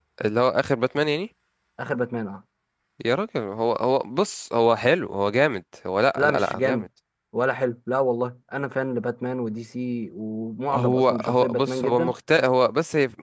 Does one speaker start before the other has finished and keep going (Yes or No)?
Yes